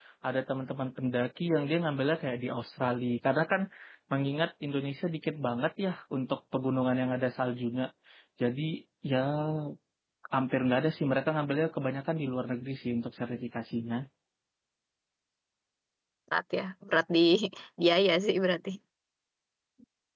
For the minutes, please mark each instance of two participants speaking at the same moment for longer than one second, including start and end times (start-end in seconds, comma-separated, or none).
none